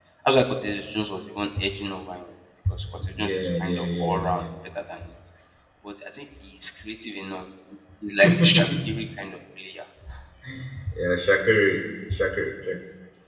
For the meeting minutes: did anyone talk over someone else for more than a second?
Yes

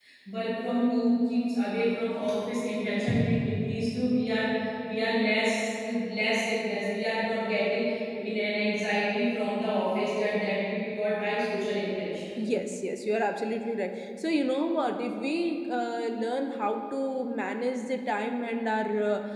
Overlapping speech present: No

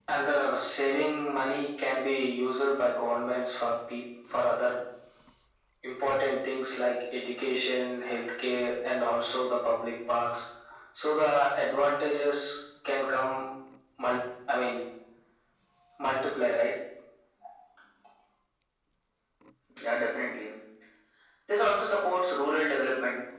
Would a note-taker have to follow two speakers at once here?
No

